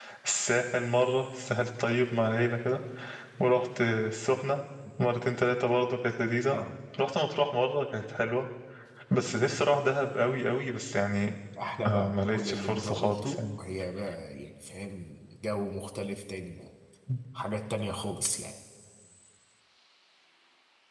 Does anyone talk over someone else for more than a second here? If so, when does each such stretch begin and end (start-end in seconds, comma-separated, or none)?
11.8-13.4